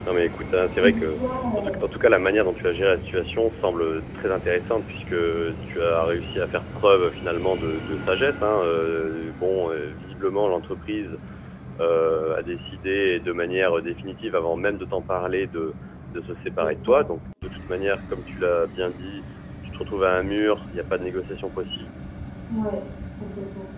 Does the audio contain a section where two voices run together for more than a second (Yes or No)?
No